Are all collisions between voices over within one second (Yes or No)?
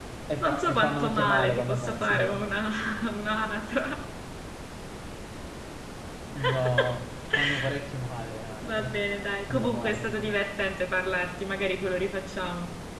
No